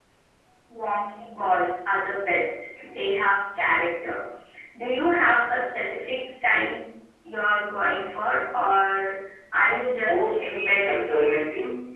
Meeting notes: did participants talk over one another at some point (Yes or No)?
Yes